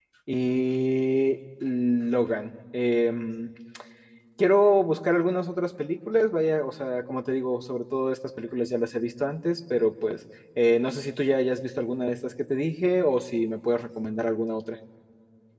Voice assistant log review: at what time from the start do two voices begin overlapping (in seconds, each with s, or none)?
none